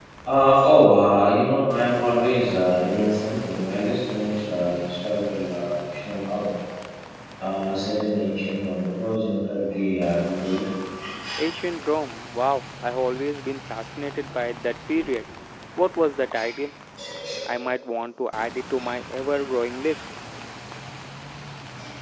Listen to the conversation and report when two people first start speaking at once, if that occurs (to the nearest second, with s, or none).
none